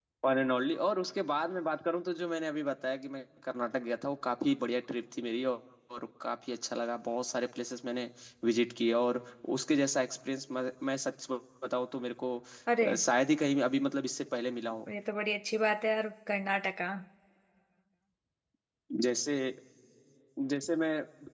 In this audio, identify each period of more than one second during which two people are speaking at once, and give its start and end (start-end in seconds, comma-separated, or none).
none